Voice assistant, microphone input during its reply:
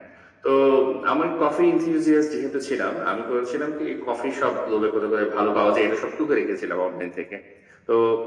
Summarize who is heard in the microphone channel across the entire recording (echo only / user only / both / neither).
echo only